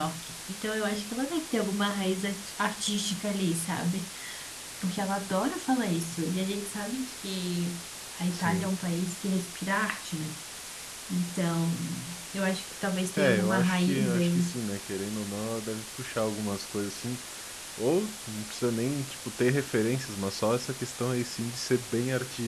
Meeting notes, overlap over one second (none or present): present